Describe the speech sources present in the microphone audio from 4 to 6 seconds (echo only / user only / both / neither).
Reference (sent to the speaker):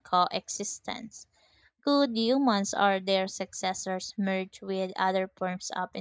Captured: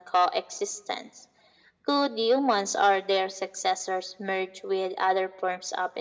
echo only